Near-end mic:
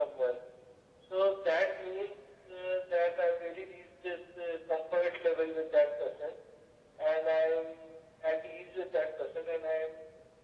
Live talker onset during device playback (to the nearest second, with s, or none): none